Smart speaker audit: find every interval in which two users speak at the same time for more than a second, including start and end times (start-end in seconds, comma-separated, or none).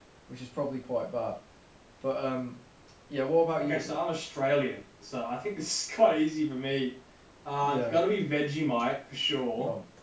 none